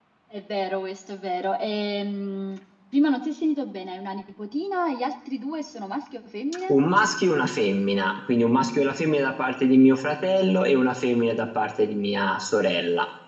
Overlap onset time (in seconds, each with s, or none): none